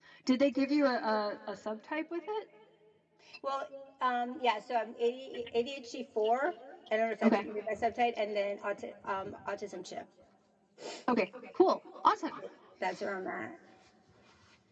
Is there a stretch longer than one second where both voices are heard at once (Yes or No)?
No